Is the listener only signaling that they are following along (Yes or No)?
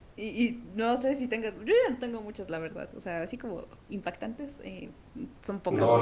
No